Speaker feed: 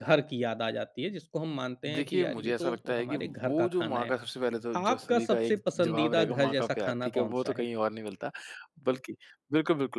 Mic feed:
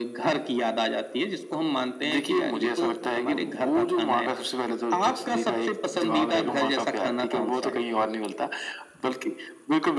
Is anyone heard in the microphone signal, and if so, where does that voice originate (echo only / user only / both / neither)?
echo only